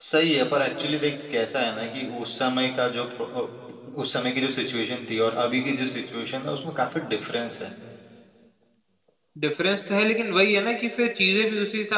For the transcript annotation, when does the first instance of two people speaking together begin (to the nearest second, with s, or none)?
none